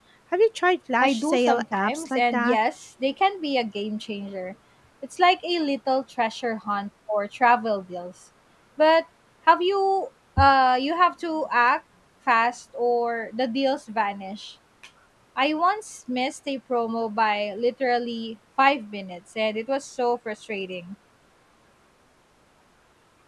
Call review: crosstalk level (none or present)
present